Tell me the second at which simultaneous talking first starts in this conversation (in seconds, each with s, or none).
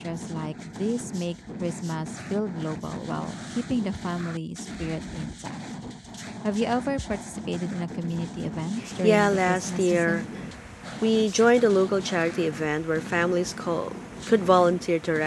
8.8 s